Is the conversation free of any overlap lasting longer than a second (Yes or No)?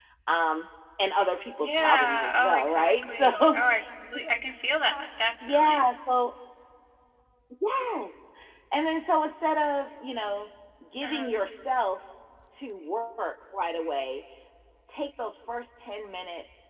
No